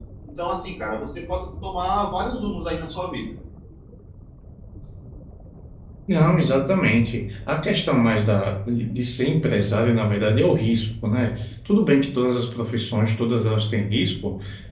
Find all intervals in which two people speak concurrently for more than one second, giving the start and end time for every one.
none

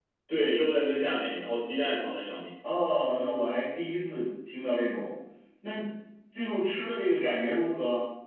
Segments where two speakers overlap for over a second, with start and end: none

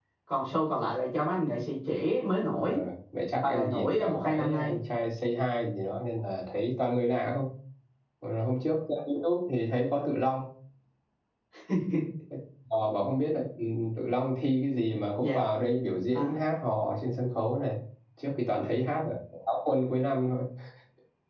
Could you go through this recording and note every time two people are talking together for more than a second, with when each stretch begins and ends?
3.4-4.8

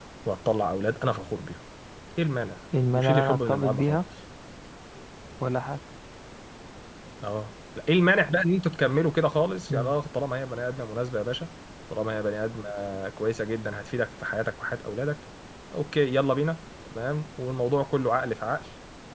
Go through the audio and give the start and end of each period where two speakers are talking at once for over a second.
2.8-4.0

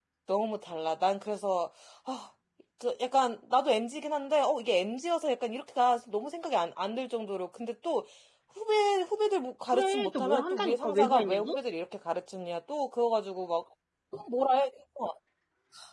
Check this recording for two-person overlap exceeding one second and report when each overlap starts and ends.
9.7-11.6

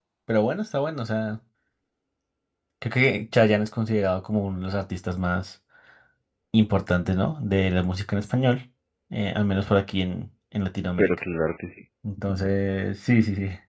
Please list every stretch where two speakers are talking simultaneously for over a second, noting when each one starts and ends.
none

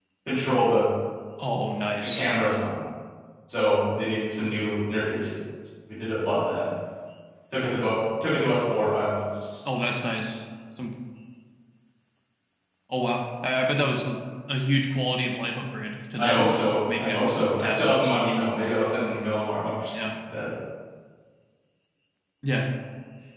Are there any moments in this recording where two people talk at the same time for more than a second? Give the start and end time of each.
16.2-18.2

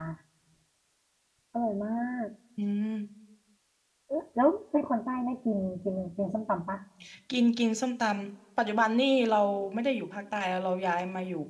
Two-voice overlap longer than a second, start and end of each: none

